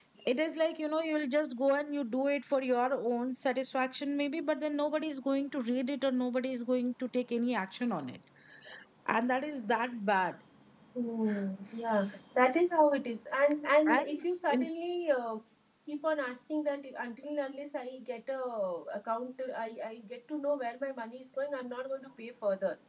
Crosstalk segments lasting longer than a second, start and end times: none

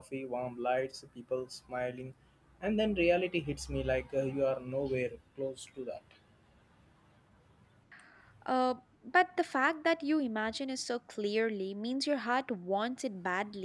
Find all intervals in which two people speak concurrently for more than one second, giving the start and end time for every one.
none

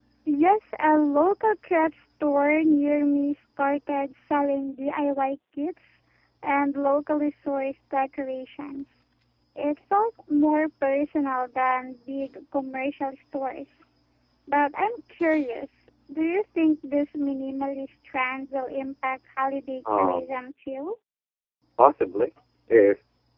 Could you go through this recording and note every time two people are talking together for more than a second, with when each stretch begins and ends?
none

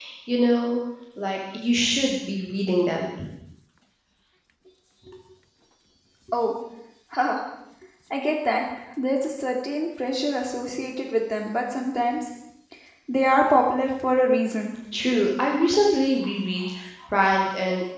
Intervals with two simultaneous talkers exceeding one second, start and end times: none

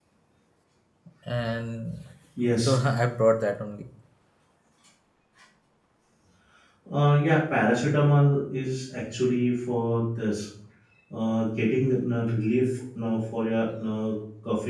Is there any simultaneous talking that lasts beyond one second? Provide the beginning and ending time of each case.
none

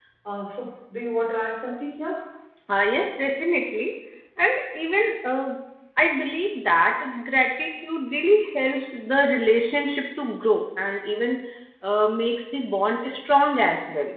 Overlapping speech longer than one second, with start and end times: none

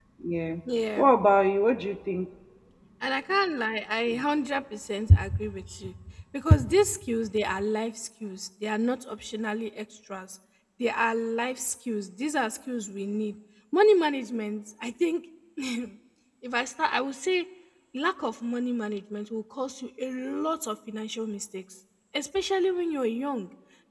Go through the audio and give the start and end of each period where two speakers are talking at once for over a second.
none

